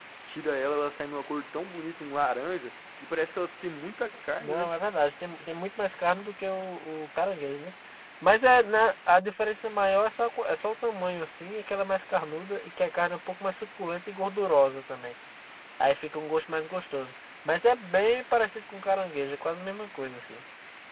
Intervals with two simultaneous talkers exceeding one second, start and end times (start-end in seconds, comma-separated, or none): none